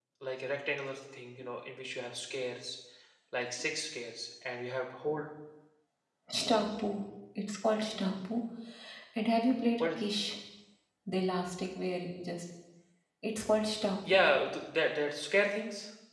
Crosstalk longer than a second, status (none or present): none